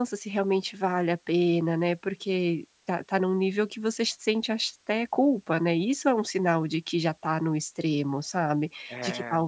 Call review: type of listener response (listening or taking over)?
listening